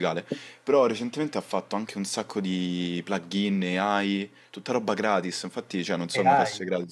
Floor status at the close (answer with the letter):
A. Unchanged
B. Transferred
A